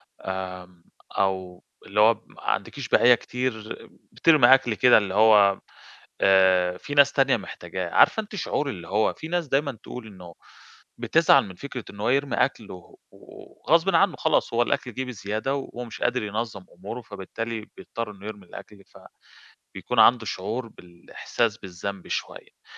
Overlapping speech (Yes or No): No